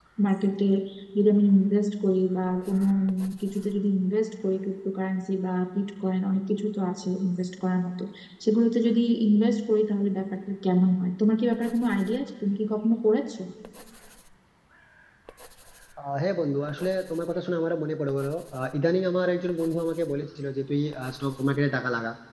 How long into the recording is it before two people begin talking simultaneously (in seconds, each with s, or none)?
none